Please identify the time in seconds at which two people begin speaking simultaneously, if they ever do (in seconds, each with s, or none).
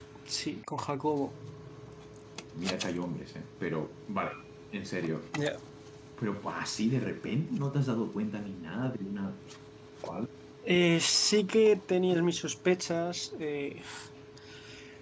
none